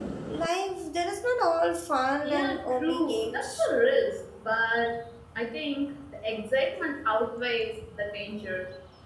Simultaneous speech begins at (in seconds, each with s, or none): 2.2 s